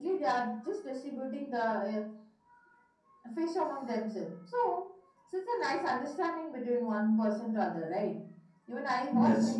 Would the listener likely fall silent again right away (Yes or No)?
Yes